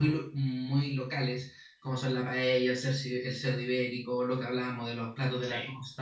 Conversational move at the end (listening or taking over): listening